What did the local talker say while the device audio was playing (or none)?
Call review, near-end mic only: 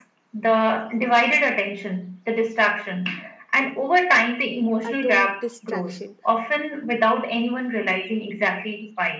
uh, to distraction.